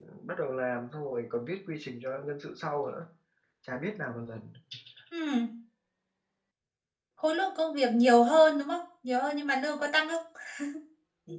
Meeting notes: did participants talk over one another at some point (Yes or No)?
No